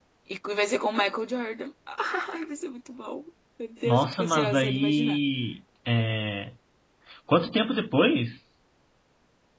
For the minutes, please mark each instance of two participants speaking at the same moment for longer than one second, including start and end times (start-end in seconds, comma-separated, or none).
3.8-5.2